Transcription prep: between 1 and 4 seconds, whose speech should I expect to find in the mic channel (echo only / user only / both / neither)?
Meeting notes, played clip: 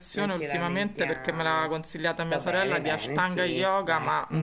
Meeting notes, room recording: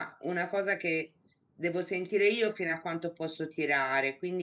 user only